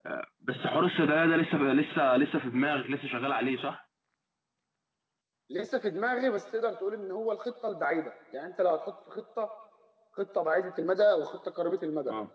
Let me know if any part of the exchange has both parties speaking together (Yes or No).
No